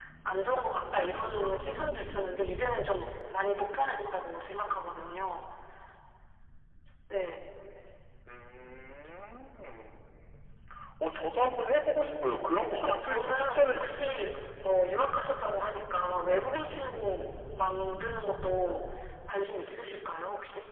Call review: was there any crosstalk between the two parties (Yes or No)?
Yes